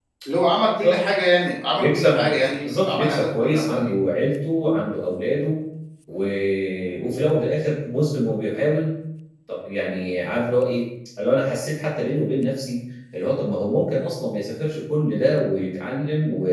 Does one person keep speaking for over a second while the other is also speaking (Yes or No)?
Yes